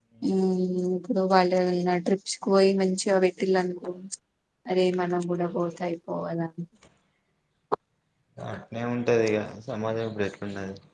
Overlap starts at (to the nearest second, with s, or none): none